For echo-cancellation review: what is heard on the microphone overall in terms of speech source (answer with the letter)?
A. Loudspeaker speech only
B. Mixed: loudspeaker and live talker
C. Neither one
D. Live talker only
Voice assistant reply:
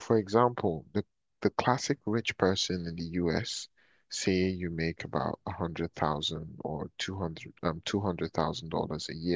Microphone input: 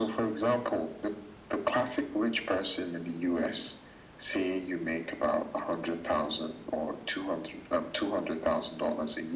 A